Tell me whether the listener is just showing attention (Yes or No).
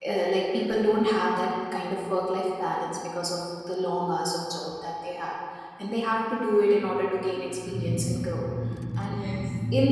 Yes